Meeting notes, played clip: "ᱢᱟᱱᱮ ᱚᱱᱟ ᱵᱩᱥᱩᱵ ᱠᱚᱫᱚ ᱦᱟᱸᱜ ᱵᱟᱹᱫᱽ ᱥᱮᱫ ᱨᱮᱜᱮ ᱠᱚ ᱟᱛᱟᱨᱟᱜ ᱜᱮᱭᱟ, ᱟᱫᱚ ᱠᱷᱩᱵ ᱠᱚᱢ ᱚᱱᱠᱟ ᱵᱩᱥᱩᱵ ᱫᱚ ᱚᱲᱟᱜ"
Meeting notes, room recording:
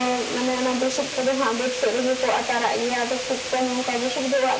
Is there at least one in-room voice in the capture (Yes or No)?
No